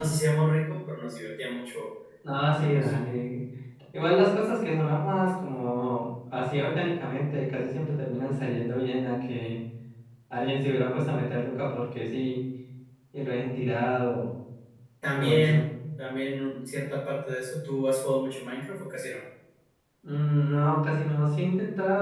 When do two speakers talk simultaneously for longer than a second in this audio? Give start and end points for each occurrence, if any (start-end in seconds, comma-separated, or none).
none